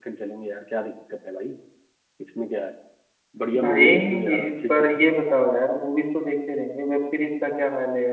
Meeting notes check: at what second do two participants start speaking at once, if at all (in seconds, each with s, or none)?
3.6 s